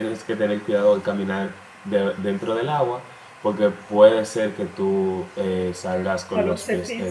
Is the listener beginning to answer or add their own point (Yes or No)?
Yes